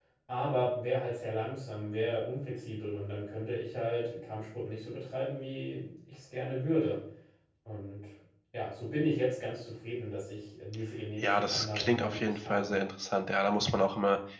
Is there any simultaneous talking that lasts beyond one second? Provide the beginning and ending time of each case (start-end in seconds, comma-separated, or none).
11.2-12.7